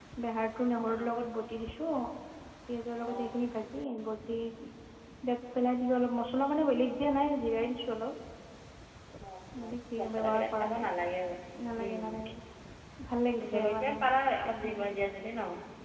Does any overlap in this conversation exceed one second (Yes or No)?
Yes